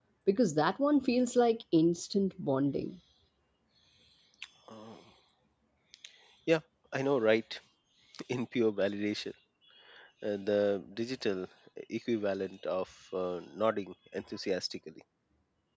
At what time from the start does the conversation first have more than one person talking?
none

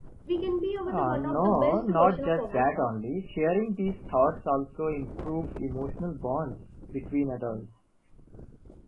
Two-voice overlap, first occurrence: 0.9 s

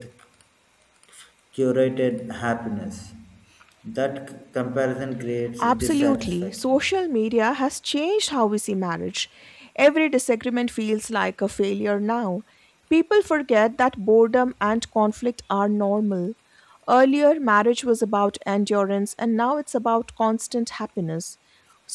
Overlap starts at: 5.6 s

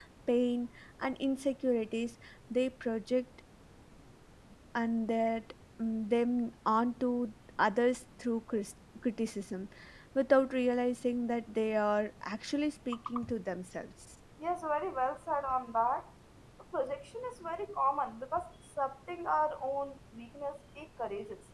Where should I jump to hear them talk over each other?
none

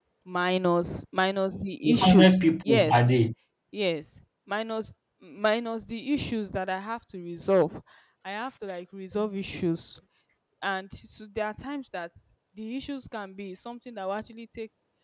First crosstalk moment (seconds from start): 1.8 s

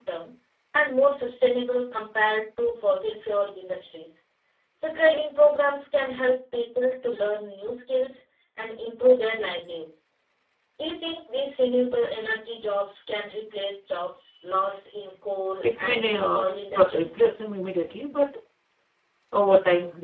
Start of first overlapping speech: 15.6 s

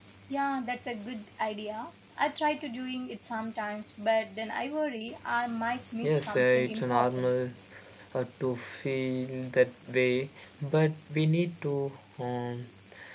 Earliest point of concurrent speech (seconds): 6.0 s

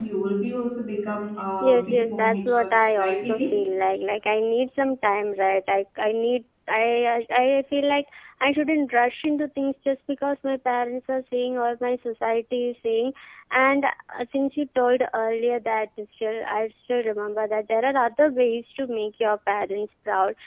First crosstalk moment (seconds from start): 1.6 s

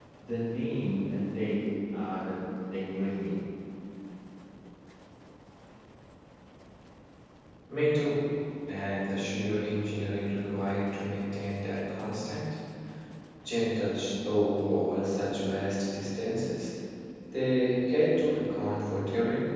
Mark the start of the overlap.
none

